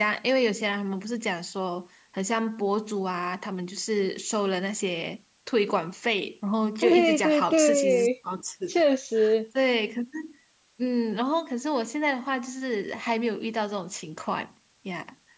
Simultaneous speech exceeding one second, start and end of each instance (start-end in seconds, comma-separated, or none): 6.8-8.1